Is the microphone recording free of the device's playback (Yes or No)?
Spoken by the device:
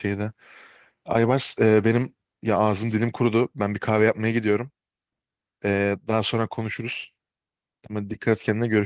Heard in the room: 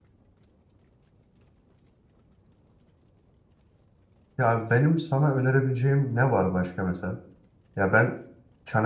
Yes